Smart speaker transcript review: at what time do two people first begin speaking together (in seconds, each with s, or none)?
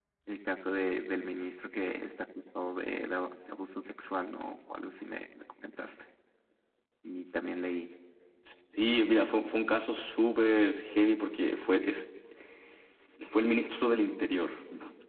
none